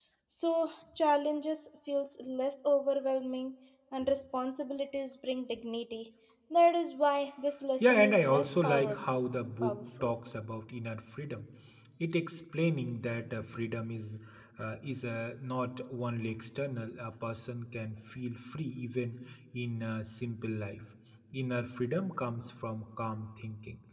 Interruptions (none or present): present